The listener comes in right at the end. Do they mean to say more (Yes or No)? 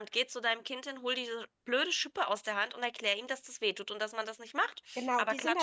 Yes